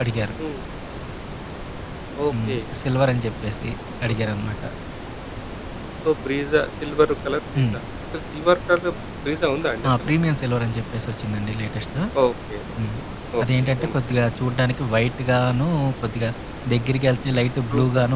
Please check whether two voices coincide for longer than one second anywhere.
No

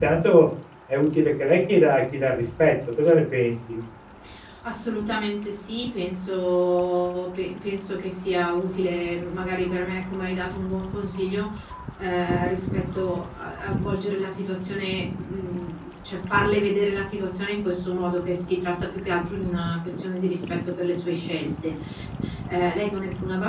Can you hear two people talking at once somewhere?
No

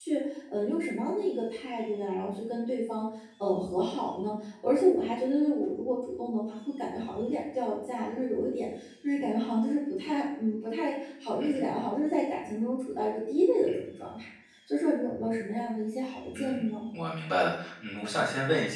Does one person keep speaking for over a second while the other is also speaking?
No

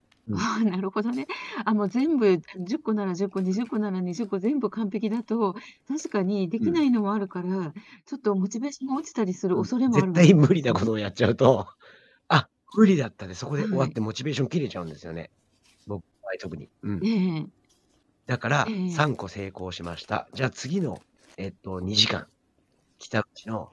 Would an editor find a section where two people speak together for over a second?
Yes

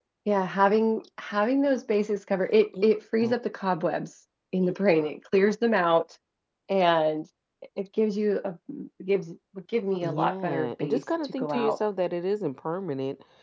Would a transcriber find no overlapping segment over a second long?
No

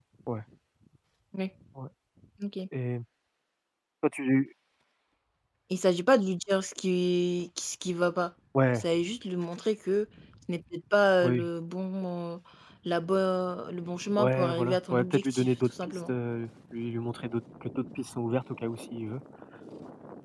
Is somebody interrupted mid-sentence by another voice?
Yes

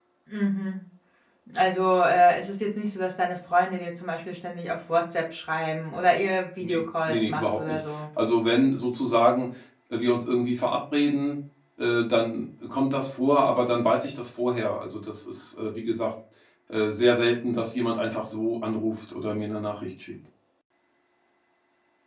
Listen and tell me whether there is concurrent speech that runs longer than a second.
Yes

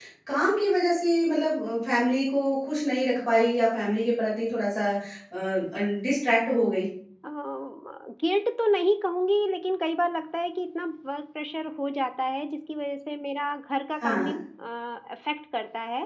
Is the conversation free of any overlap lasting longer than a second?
Yes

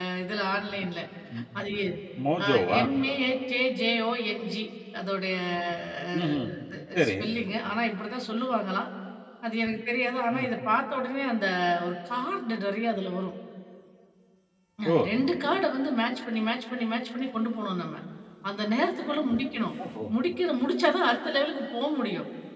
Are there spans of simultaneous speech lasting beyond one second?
No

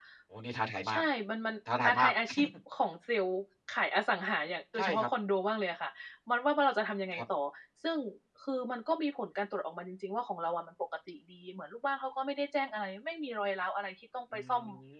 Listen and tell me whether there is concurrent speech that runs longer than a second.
No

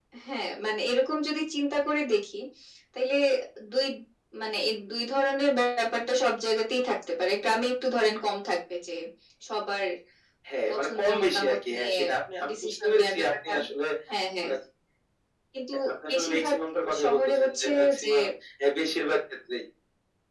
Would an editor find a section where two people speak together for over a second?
Yes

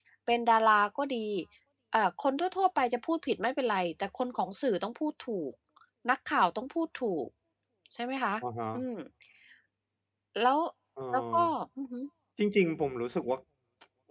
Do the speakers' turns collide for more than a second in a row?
No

